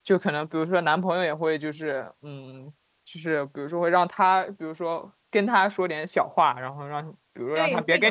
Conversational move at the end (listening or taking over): taking over